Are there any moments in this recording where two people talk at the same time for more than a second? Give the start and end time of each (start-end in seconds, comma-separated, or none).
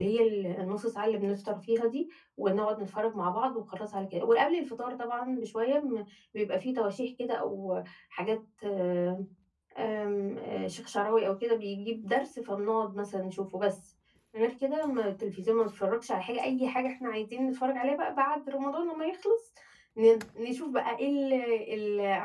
none